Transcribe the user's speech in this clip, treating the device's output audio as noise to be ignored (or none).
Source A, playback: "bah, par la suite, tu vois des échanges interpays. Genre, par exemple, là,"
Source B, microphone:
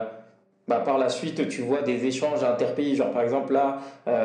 none